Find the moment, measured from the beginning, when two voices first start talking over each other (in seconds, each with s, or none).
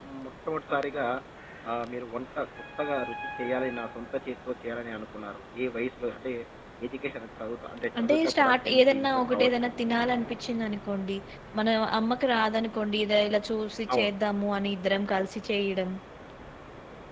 8.0 s